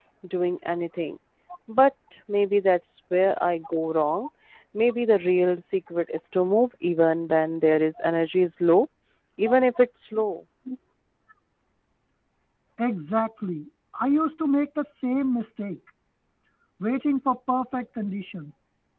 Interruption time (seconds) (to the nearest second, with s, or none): none